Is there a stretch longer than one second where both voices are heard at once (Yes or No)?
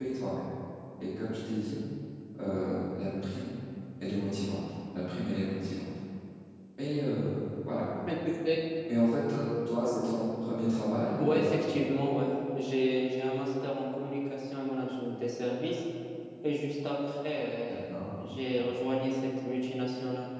No